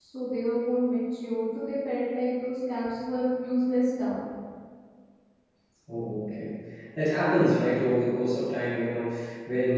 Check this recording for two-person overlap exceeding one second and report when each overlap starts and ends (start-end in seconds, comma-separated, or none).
none